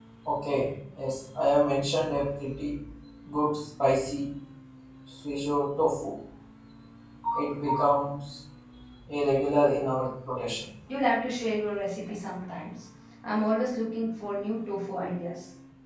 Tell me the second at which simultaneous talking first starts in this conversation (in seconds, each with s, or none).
none